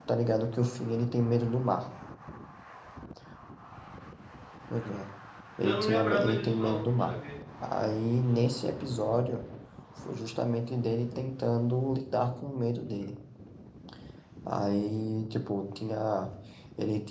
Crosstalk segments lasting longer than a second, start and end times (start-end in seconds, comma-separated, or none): 5.6-7.1